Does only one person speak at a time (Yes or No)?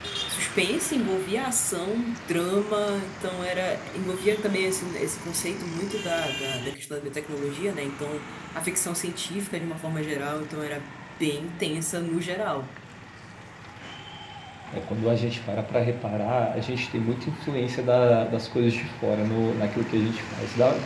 Yes